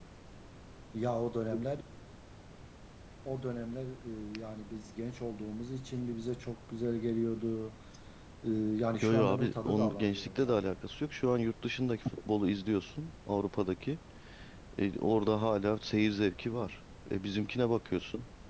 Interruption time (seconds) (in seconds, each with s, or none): 9.0 s